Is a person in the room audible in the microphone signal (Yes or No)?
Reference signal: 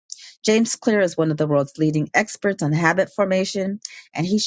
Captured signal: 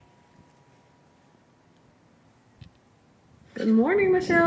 Yes